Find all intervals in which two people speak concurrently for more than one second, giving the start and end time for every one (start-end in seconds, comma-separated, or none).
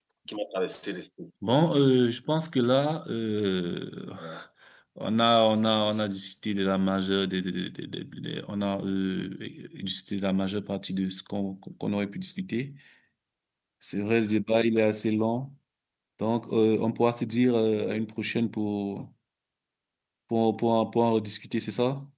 none